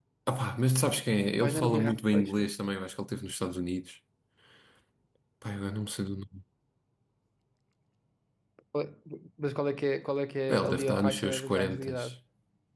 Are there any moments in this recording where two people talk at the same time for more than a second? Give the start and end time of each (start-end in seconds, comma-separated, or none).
1.3-2.5, 10.5-11.9